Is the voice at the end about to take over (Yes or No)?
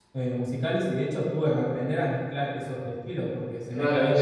Yes